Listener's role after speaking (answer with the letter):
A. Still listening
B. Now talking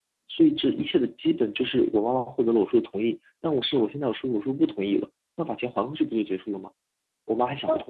B